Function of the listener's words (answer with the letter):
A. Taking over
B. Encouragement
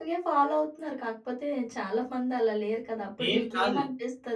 B